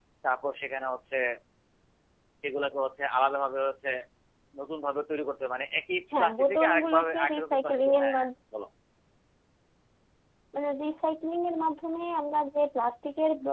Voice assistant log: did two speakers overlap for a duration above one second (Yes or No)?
Yes